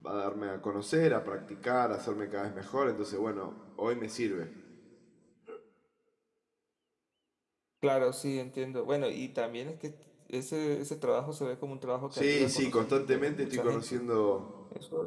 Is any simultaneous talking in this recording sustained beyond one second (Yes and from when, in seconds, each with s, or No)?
Yes, from 12.1 s